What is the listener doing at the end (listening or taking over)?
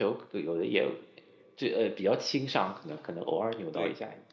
taking over